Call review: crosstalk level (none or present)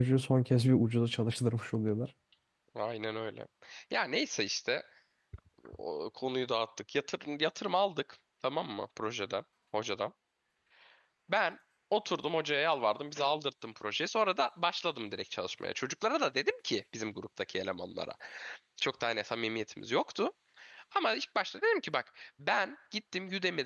none